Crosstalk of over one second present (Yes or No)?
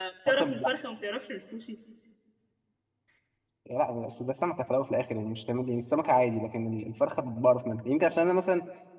No